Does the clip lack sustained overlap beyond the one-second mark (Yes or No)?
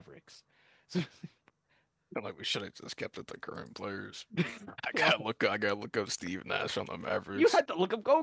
Yes